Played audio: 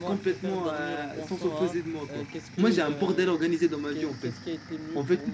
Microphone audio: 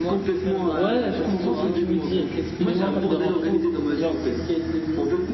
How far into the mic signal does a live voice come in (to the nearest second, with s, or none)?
1 s